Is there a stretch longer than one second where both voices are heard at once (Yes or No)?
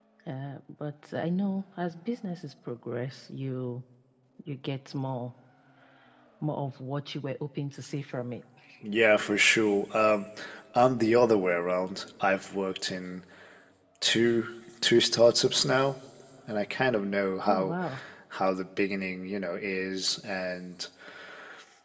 No